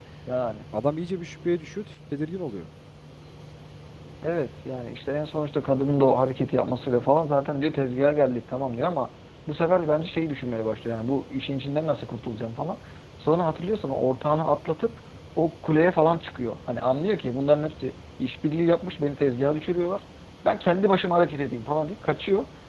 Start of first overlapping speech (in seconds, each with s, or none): none